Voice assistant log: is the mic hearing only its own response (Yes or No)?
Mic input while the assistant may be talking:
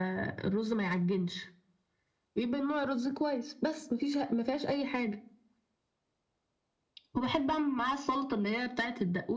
Yes